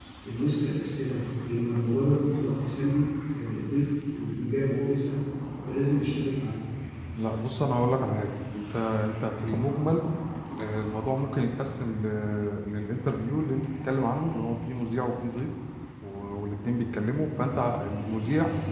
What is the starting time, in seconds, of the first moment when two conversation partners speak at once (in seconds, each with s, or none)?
none